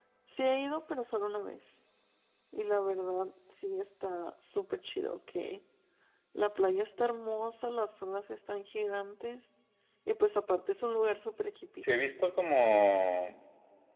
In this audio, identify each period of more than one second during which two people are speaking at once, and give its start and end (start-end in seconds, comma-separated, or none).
none